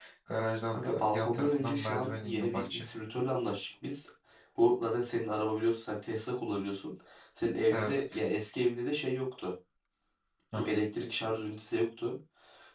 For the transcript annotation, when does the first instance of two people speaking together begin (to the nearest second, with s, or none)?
1 s